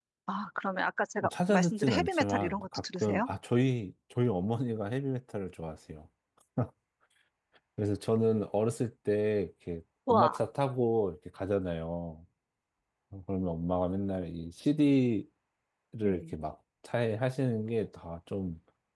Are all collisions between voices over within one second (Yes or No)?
No